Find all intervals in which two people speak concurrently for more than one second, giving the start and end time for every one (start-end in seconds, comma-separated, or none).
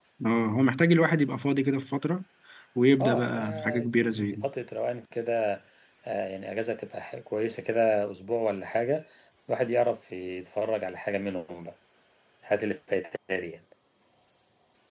3.0-4.5